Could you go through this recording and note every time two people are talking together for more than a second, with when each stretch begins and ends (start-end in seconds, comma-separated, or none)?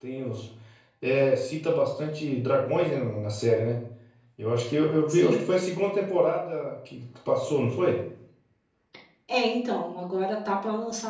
none